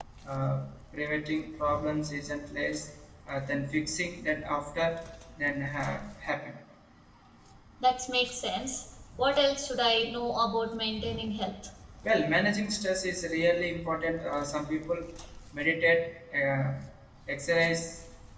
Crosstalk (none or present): none